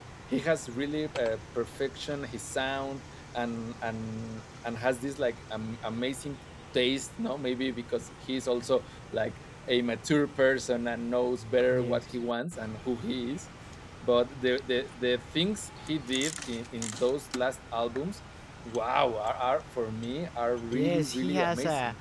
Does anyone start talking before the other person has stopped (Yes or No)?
Yes